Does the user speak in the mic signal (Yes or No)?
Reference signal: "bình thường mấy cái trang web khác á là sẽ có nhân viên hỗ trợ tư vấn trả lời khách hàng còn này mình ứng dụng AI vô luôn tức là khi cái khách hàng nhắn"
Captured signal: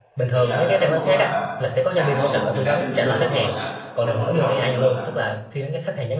Yes